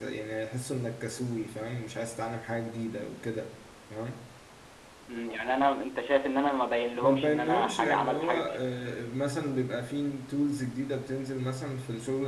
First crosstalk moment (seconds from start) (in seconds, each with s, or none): 7.0 s